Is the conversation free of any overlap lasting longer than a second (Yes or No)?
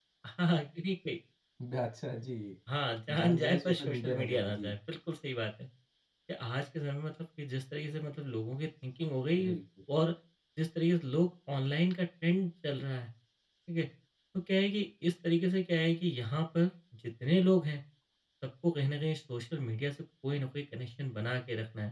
No